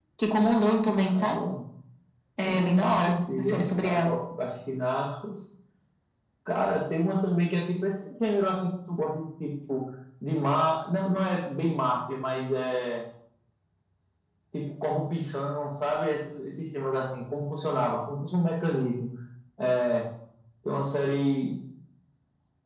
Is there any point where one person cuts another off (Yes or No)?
Yes